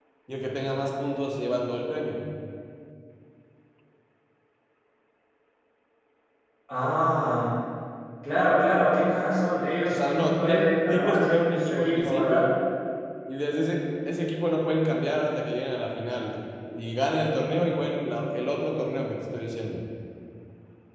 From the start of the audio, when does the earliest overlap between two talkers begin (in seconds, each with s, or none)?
9.9 s